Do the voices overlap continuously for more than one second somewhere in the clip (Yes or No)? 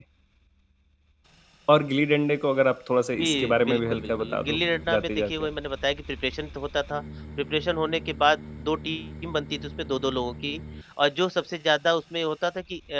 Yes